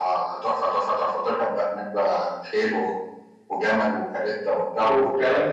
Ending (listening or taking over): taking over